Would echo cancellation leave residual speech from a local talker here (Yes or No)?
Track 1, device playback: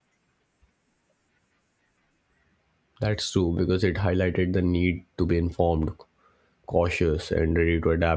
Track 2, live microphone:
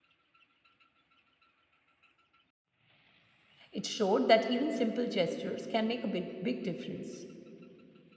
Yes